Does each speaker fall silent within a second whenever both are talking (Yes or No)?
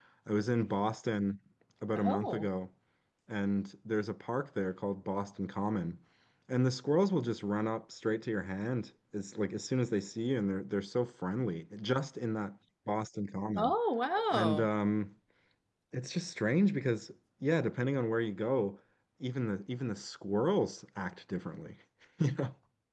Yes